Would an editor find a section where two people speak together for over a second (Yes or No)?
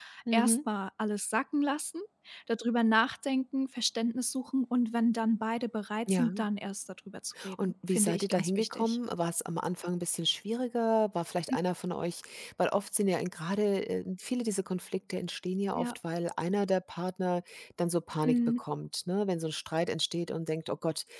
Yes